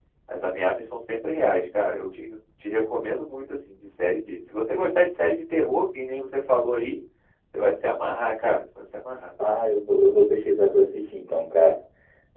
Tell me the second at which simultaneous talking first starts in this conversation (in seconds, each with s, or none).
none